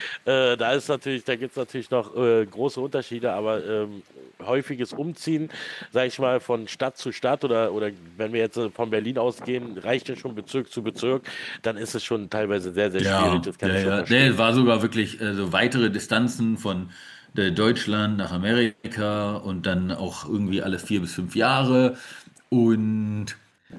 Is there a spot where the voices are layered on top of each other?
Yes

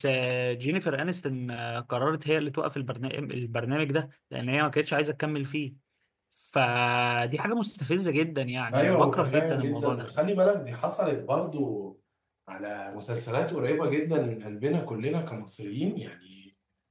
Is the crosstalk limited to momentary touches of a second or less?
No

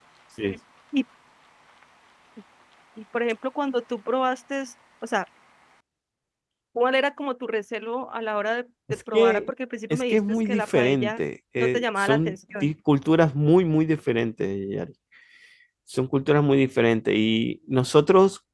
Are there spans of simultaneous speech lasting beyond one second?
Yes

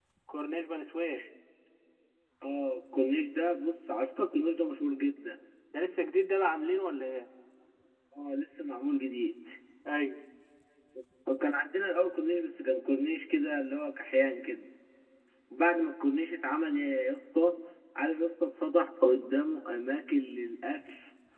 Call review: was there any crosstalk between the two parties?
No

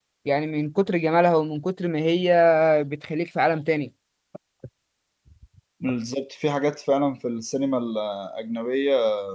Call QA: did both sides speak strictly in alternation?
Yes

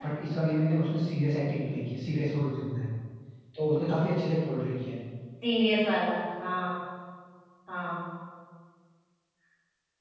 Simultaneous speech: No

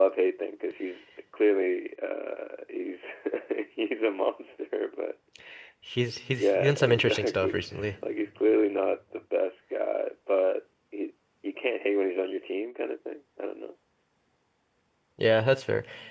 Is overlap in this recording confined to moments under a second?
No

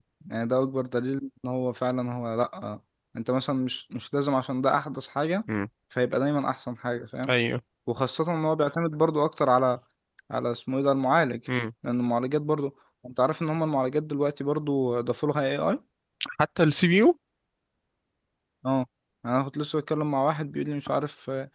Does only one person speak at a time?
Yes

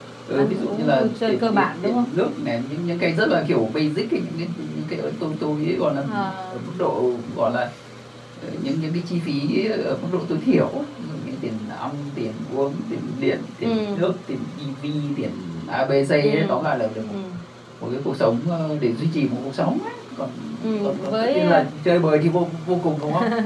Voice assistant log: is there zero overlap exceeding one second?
No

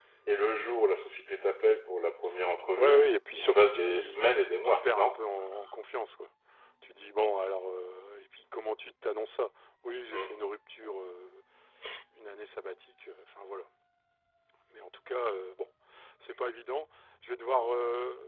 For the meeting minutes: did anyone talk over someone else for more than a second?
Yes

